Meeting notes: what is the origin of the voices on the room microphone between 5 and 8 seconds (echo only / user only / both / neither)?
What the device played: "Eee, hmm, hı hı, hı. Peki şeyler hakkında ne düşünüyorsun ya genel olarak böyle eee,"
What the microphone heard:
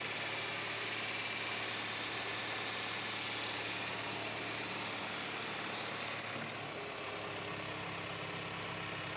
neither